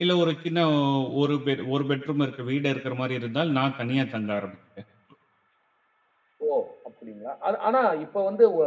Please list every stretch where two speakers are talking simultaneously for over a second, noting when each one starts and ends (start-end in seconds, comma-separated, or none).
none